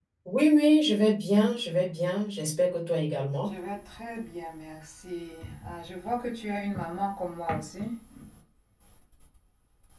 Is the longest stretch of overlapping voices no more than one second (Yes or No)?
Yes